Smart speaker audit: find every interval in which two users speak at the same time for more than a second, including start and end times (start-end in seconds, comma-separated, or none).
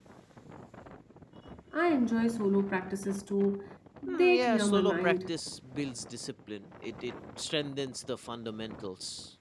4.1-5.3